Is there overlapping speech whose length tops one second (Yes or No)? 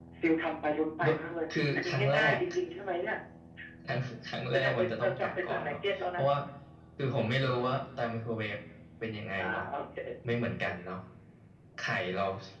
Yes